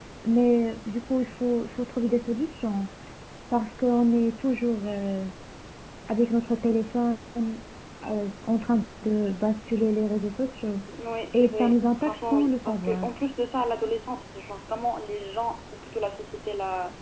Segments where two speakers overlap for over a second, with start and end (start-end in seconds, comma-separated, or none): 11.3-13.1